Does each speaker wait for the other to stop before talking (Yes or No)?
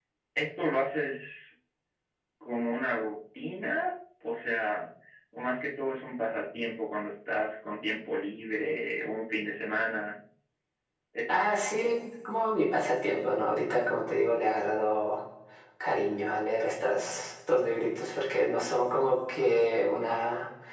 Yes